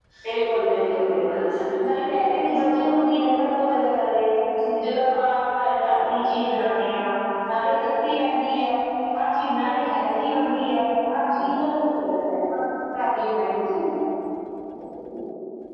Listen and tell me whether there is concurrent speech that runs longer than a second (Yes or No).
Yes